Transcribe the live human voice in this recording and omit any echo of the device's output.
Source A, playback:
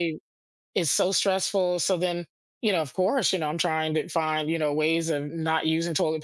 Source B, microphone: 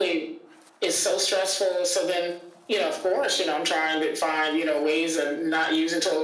none

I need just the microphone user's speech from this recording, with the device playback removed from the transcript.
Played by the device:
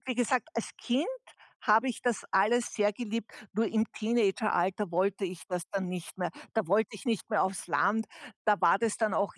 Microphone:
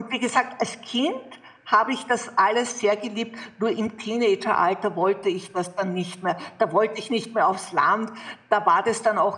none

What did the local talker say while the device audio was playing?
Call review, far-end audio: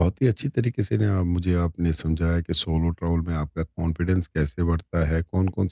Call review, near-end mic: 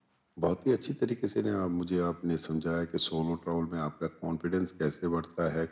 none

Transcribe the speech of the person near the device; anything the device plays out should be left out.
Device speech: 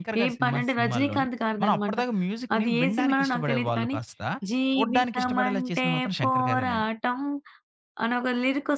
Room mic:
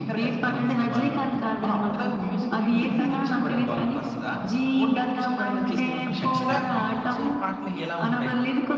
మీకు కొంచెం చిరాకు పెట్టించే పాటలు ఎలా ఉంటాయి?

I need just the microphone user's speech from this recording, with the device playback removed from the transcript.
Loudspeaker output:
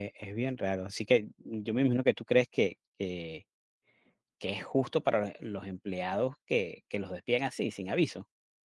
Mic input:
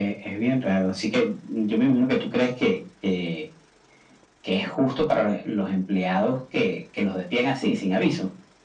none

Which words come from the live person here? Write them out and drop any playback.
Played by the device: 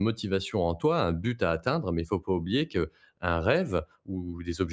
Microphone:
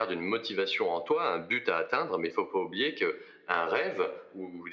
none

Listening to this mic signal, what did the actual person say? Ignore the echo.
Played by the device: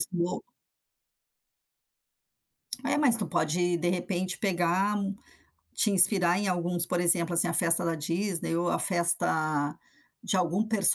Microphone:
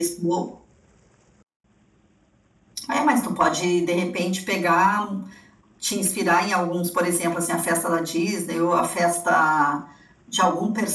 none

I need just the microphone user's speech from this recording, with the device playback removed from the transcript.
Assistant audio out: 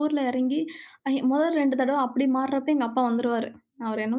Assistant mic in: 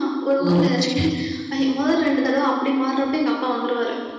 ஓ! சரி.

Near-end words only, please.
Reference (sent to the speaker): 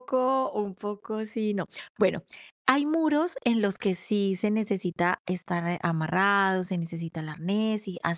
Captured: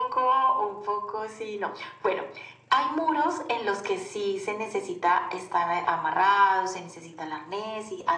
none

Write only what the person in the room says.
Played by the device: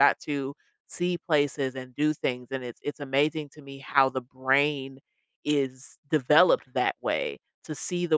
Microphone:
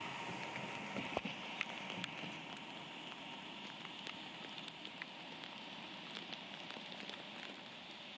none

